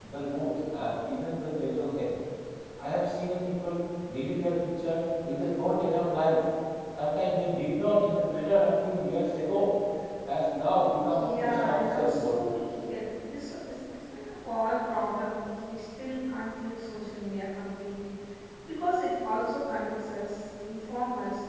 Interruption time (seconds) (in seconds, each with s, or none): 11.1 s